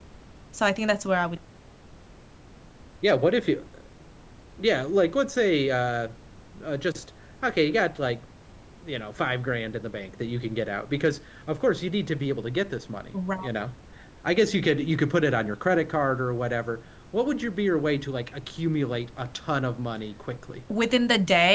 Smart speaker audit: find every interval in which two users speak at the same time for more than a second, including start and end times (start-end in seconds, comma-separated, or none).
none